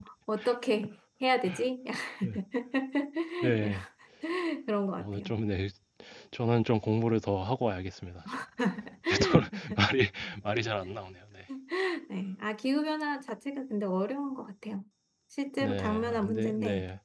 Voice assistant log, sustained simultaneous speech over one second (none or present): present